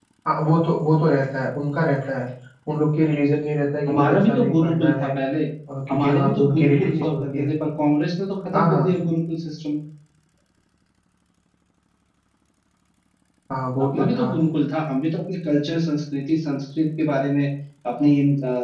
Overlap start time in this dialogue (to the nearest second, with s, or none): 4 s